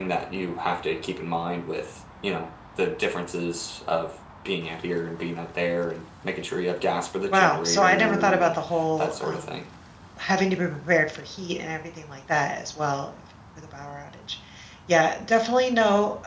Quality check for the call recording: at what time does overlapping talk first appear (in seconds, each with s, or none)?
7.3 s